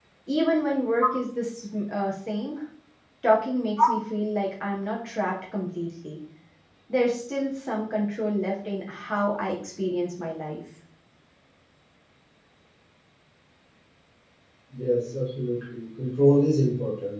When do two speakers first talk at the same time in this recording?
none

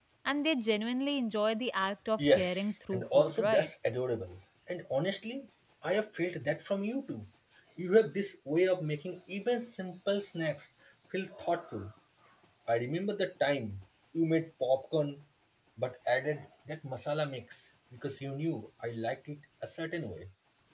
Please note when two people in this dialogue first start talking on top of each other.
2.2 s

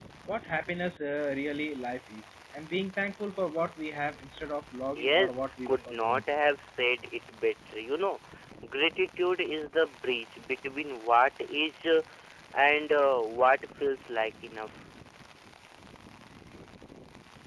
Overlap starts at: 5.0 s

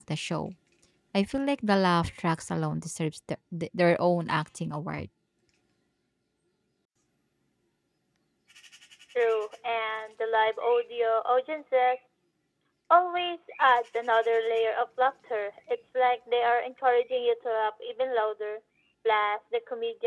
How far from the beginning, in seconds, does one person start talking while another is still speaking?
none

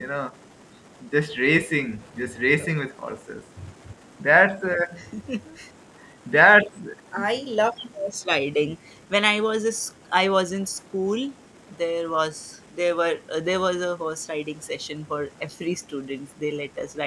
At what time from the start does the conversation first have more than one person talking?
none

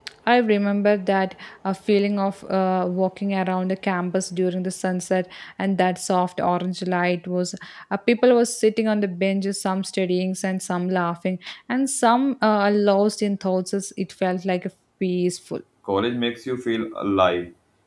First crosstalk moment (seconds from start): none

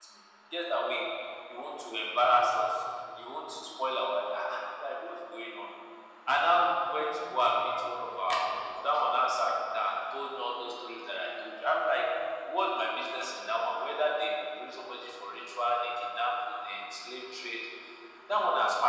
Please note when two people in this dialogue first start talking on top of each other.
none

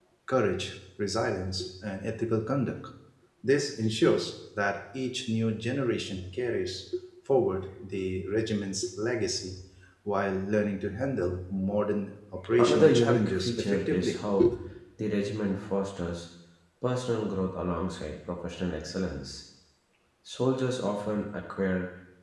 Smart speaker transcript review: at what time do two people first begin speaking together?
12.6 s

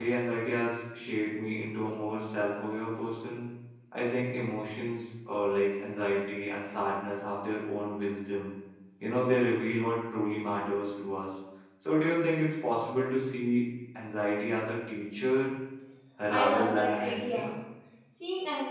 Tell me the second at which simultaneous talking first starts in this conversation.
16.3 s

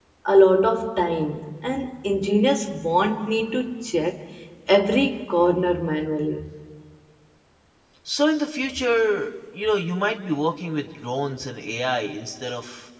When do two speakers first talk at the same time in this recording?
none

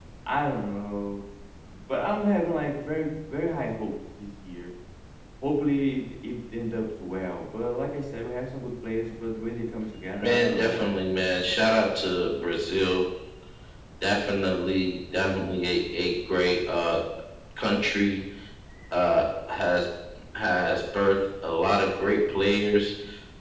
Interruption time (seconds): 10.2 s

